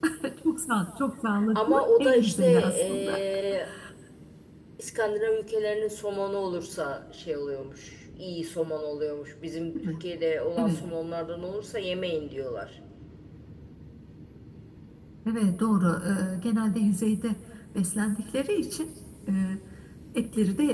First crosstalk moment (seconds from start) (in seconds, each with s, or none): 1.6 s